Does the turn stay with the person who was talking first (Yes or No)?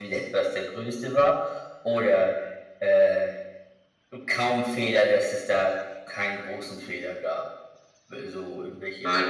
No